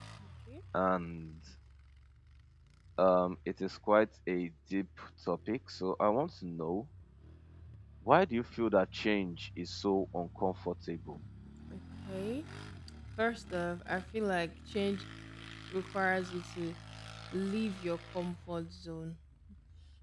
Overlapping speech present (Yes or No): No